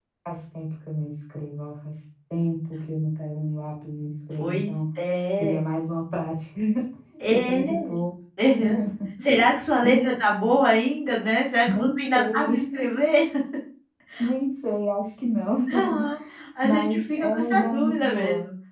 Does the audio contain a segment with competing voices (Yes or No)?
Yes